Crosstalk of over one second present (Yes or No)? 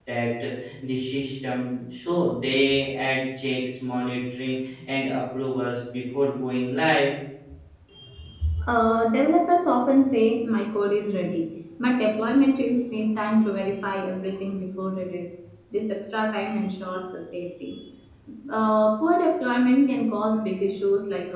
No